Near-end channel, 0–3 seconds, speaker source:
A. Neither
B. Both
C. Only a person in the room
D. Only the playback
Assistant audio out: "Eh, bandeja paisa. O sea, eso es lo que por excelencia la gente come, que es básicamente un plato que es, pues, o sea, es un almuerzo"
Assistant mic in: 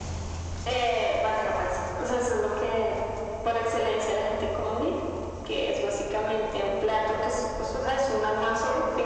D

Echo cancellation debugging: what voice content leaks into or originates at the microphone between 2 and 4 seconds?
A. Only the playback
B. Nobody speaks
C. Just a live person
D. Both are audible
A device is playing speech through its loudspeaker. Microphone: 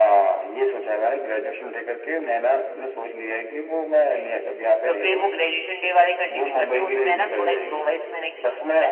A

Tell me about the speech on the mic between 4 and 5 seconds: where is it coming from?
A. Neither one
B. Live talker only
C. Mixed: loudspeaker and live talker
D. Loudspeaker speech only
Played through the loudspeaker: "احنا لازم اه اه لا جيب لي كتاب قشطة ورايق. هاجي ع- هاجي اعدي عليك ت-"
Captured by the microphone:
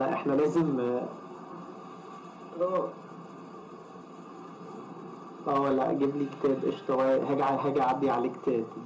A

